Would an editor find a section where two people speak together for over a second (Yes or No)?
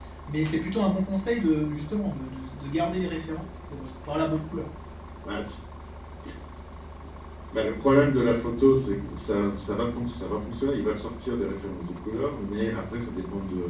No